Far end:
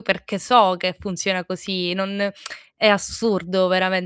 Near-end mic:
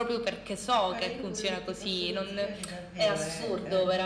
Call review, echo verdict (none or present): present